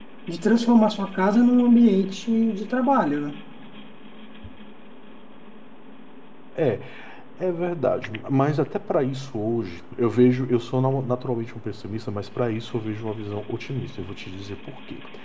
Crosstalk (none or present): none